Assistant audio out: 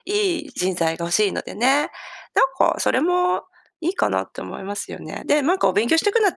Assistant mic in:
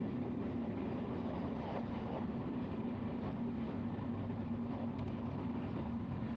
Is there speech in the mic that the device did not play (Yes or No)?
No